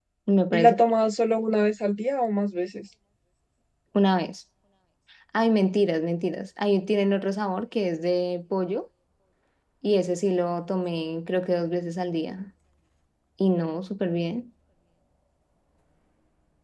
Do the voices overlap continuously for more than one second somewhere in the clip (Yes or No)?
No